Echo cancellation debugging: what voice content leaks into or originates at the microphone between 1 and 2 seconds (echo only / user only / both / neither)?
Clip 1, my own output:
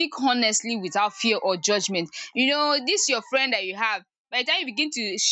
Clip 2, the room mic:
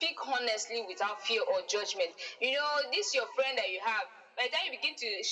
echo only